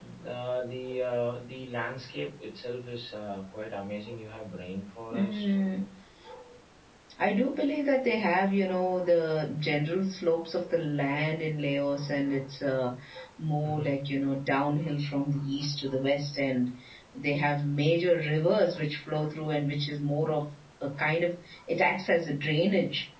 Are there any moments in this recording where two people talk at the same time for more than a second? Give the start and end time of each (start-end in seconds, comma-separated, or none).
none